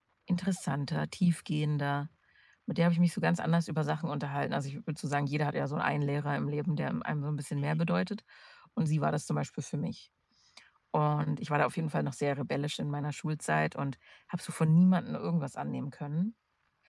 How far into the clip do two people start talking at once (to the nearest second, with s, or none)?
none